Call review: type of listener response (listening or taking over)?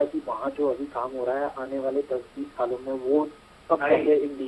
taking over